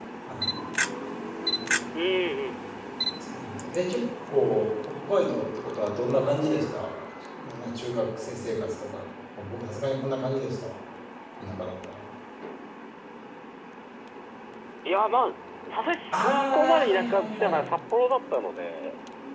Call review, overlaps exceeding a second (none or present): present